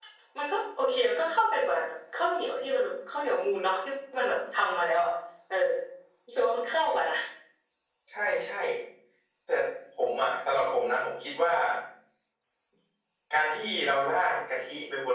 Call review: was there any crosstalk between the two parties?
No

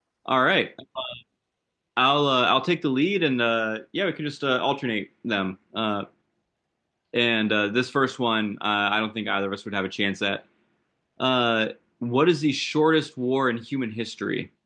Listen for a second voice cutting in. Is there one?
No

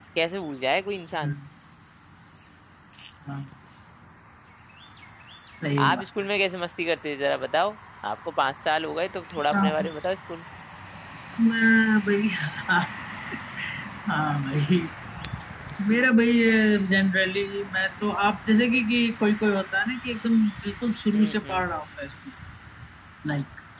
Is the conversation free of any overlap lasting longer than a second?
Yes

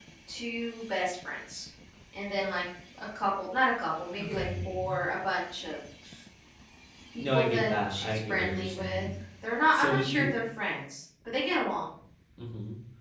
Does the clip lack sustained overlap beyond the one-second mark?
No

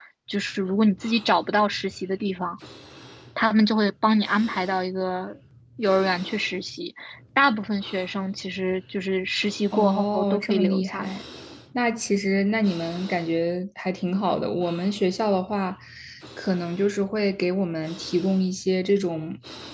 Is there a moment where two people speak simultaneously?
Yes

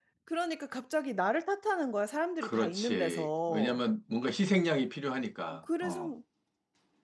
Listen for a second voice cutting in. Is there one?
Yes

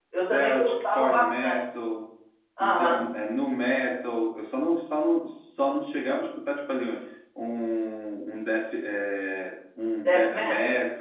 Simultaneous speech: Yes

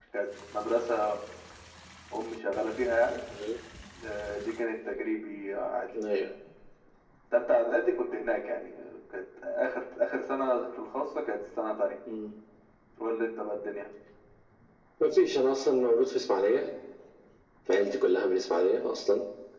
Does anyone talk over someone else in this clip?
No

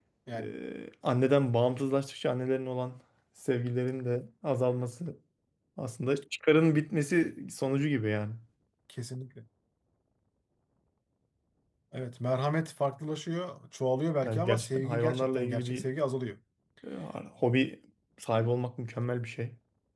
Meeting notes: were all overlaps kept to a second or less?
No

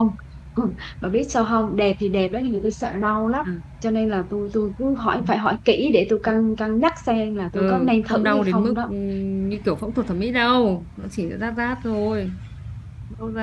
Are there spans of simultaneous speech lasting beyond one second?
Yes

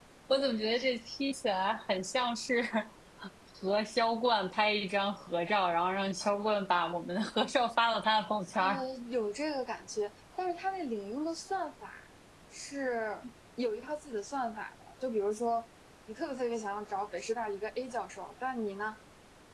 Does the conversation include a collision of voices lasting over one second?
No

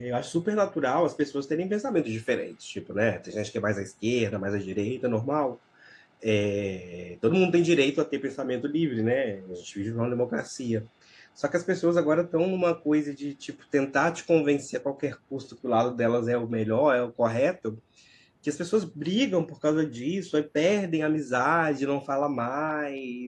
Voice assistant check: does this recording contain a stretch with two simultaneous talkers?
No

